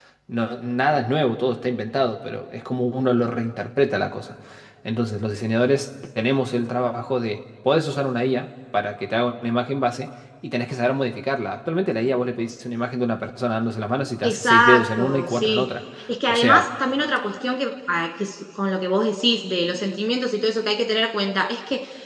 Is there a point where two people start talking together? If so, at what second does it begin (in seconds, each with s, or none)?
14.2 s